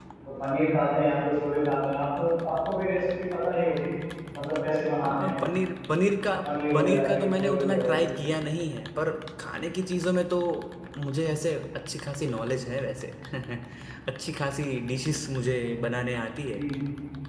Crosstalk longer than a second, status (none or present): present